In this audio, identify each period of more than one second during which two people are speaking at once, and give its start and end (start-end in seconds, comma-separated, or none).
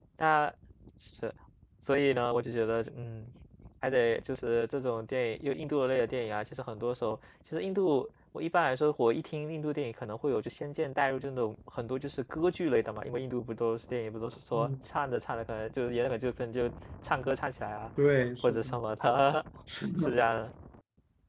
none